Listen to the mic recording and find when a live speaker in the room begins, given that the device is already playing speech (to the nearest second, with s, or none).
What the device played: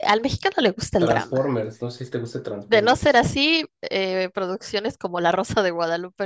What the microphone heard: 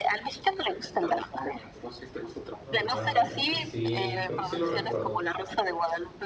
3 s